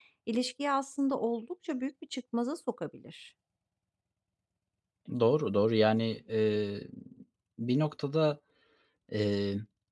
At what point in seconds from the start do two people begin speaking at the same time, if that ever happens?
none

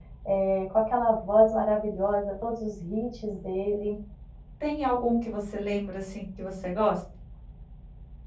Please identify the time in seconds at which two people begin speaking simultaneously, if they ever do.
none

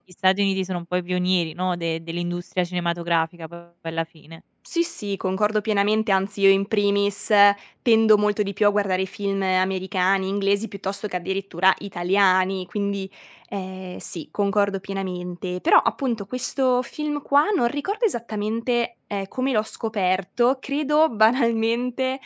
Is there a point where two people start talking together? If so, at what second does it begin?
none

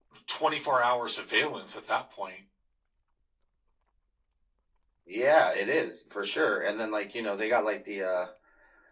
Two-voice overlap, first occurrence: none

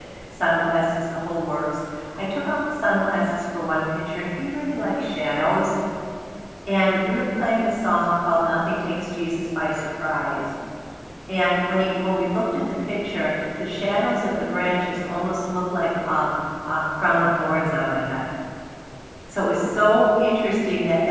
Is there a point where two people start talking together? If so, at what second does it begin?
none

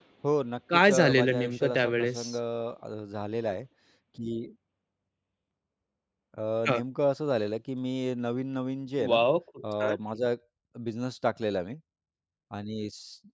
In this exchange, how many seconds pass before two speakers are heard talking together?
0.9 s

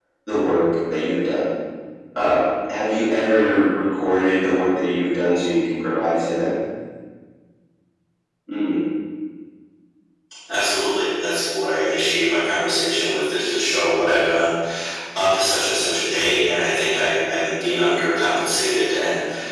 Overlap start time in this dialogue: none

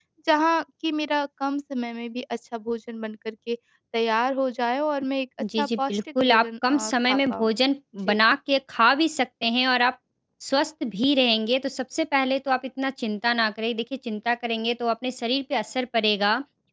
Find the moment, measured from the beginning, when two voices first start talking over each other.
5.4 s

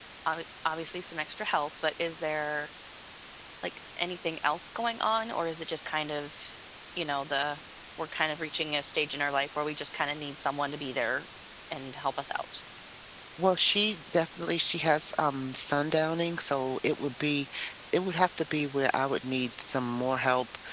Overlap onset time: none

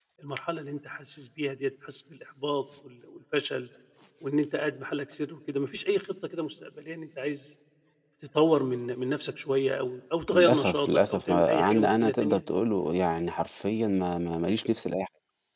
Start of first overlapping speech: 10.3 s

